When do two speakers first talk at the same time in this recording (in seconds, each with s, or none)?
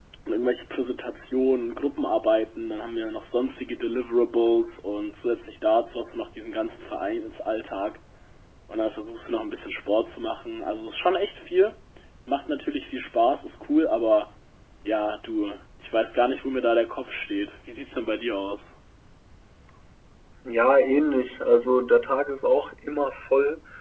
none